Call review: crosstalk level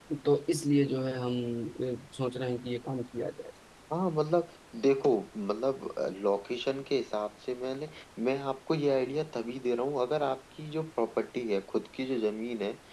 none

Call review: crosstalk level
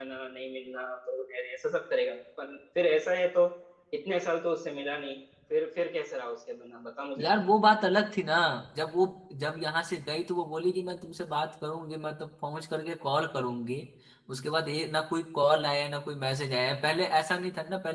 none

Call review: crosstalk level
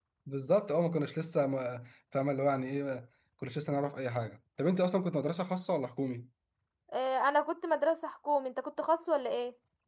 none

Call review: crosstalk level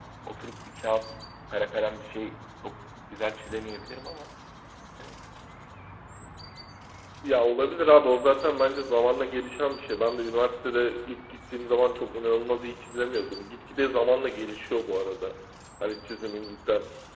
none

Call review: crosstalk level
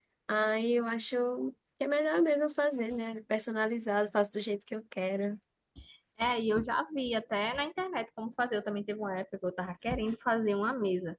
none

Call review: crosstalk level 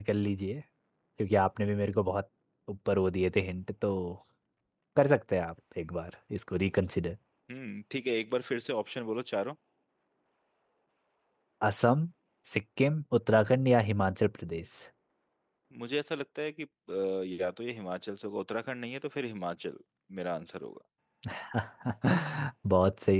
none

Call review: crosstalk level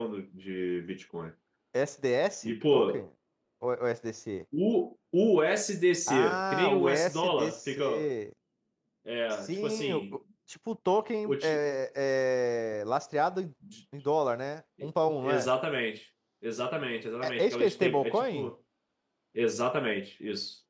present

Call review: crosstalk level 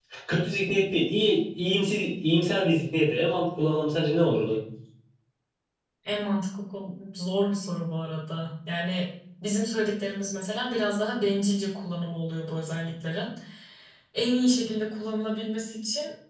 none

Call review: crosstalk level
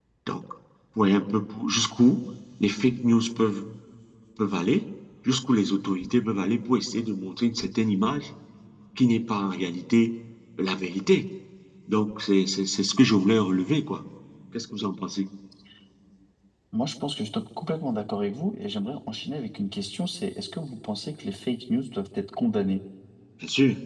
none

